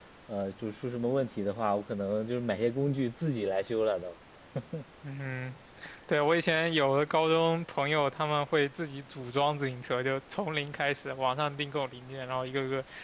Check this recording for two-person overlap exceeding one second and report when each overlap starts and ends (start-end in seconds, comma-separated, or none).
none